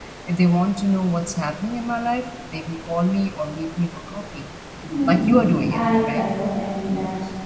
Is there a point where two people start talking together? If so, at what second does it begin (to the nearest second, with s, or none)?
5 s